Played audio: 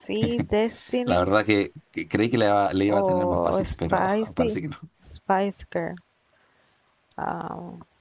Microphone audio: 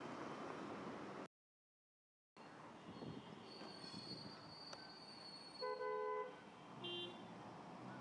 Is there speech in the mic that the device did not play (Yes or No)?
No